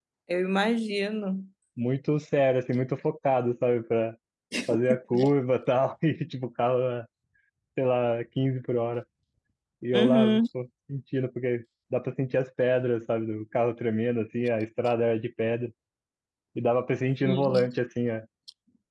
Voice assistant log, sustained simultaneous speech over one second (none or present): none